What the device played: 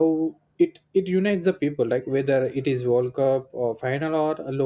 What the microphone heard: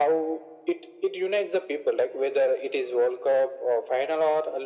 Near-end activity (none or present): none